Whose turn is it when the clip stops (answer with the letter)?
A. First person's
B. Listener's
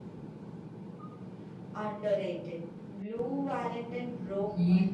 B